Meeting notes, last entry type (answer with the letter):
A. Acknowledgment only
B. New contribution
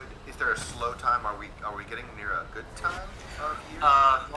B